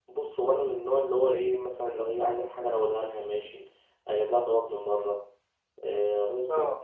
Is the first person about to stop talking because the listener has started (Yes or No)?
No